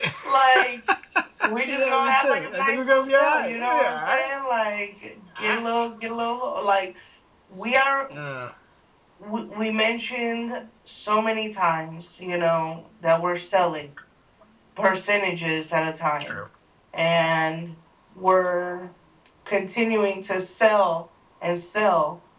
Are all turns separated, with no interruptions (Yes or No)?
No